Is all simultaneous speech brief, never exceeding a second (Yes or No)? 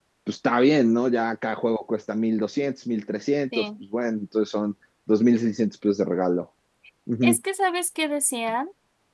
Yes